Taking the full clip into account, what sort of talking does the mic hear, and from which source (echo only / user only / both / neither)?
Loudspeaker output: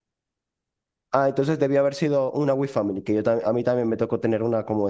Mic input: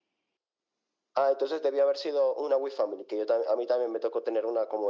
echo only